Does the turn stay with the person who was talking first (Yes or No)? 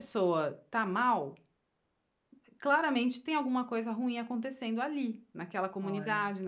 Yes